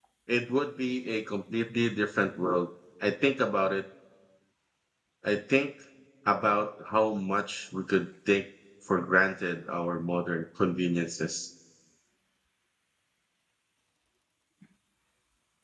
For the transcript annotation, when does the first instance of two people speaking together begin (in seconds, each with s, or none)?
none